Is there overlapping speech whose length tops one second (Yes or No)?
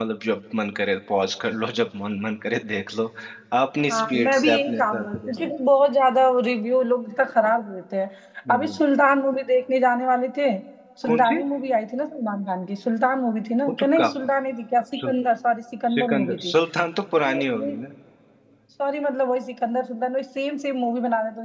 Yes